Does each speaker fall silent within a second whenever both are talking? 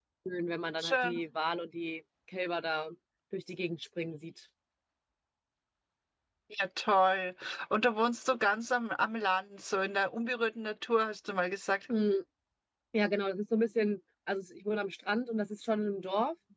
Yes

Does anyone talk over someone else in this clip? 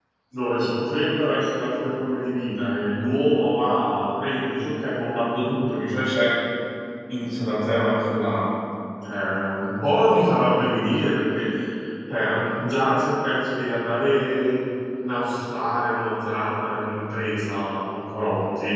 No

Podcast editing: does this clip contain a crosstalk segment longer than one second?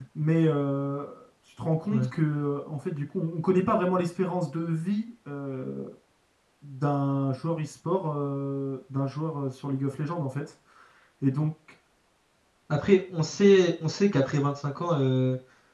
No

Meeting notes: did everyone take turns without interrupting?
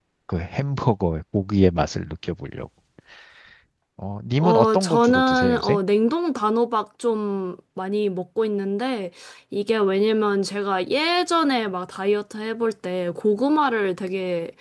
No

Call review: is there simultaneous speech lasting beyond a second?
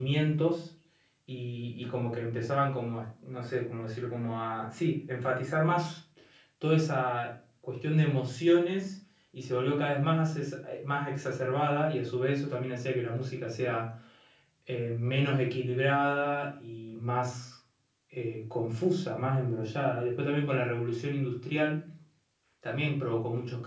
No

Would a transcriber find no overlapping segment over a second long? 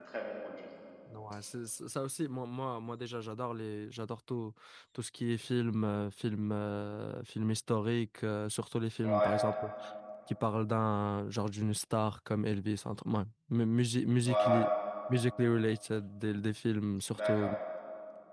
Yes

